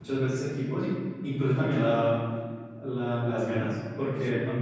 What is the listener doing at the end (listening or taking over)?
listening